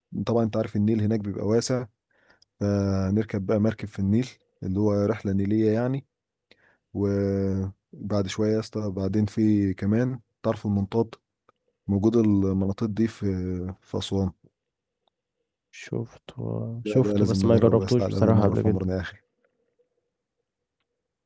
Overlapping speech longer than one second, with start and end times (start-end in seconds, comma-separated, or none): 16.9-18.8